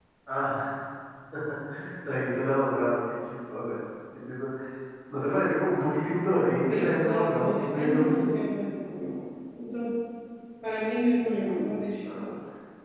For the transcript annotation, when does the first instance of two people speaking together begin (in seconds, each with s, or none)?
6.6 s